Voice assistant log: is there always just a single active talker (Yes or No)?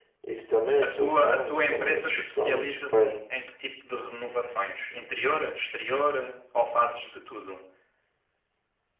No